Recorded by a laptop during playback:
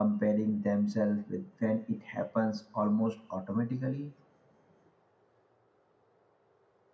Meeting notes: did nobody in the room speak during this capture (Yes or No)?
Yes